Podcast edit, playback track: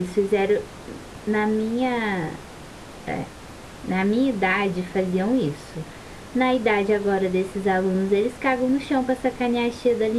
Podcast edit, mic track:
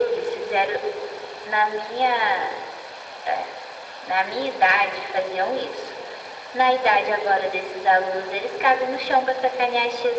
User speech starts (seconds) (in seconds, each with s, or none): none